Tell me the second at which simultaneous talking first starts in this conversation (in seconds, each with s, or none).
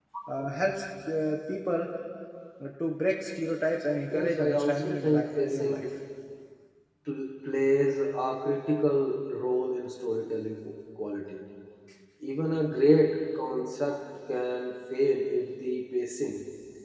4.1 s